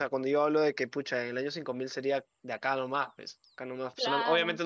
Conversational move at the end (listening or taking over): listening